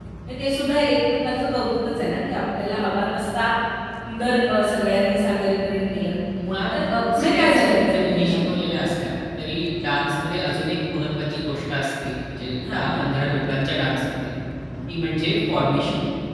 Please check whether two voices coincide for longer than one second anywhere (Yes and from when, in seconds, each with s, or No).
Yes, from 7.1 s